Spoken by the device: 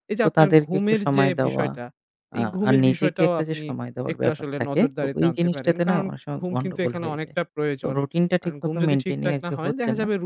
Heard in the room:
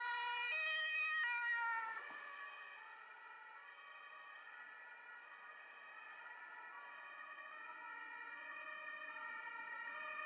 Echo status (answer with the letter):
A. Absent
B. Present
A